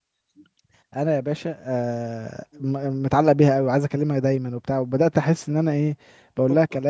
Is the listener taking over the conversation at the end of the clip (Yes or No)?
No